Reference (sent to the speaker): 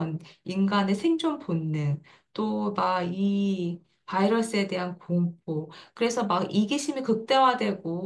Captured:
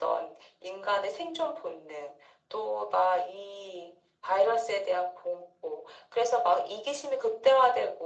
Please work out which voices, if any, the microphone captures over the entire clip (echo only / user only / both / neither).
echo only